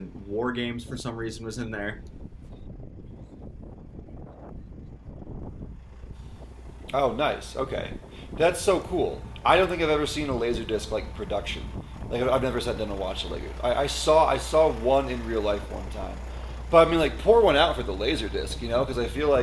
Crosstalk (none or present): none